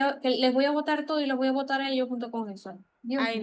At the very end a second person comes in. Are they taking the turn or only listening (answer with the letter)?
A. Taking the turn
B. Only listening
A